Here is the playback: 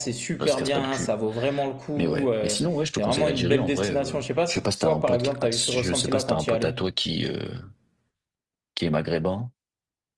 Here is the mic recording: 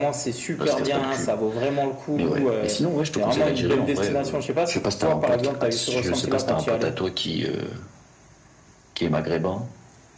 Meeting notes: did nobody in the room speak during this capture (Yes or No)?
Yes